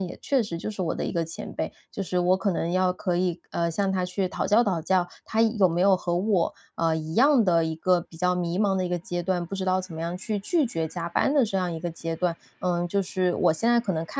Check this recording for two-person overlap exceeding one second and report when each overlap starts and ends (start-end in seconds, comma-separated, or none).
none